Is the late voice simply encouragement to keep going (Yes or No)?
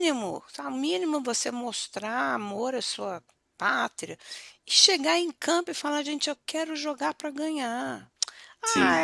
Yes